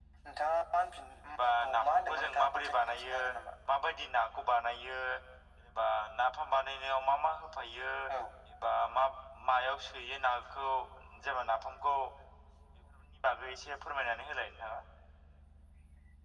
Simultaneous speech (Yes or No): Yes